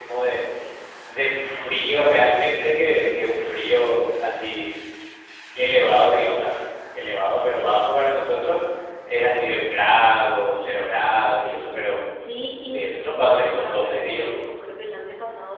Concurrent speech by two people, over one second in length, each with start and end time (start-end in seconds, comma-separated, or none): 12.7-14.2